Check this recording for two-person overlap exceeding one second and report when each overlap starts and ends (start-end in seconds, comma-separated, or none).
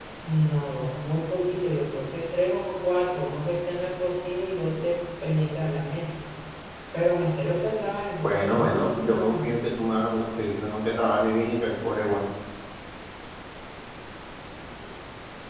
8.2-9.6